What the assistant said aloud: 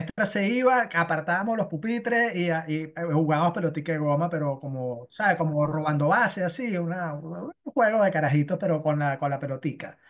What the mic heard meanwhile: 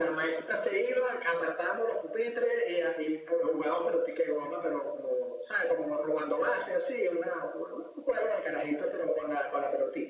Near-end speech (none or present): none